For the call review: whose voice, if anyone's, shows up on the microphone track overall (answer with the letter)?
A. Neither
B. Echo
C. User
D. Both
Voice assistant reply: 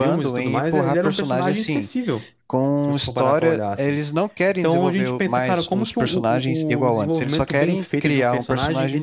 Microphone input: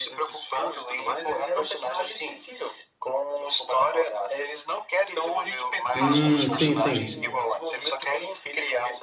D